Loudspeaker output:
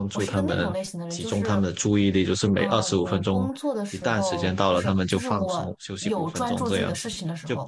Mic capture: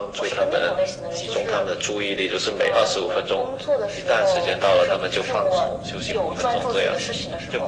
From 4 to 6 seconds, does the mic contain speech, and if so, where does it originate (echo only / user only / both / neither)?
echo only